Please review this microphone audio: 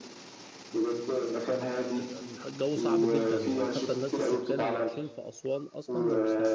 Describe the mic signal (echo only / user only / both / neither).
both